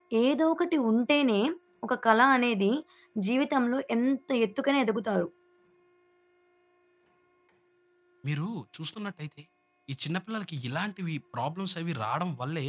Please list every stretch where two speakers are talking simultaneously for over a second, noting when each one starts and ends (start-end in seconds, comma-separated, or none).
none